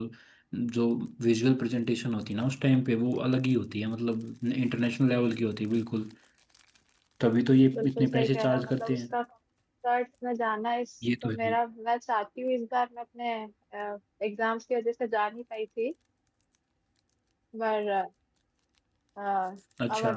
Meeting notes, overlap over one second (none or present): present